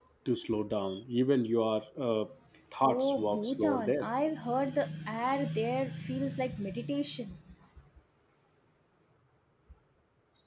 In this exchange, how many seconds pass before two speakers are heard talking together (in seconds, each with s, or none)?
2.8 s